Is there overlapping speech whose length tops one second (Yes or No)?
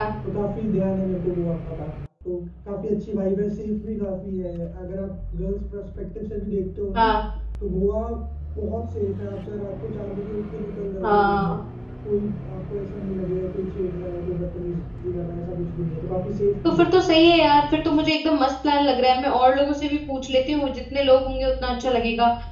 No